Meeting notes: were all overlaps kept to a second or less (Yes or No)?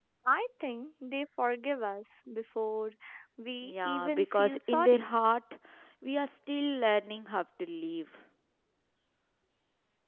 No